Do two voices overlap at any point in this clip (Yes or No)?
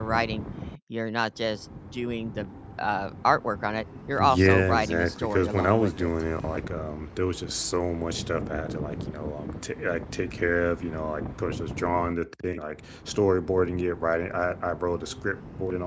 Yes